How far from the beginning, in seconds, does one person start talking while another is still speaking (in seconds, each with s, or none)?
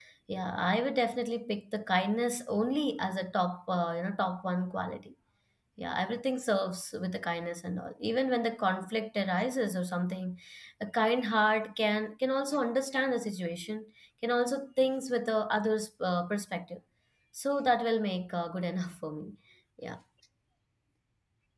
none